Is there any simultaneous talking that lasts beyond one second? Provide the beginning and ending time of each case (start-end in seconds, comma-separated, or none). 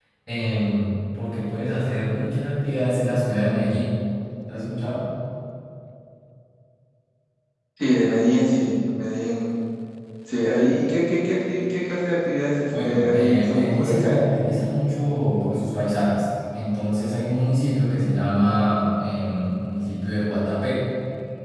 12.8-14.2